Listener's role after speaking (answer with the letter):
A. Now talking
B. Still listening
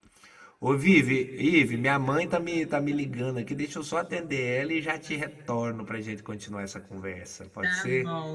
A